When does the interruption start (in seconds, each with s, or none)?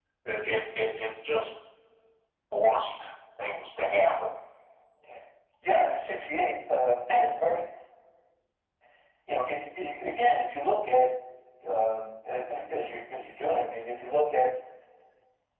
none